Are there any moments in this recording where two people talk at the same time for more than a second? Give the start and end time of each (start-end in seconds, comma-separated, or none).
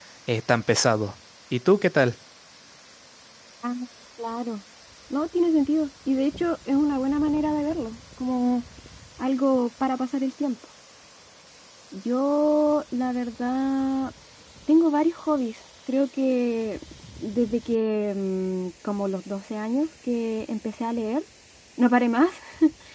none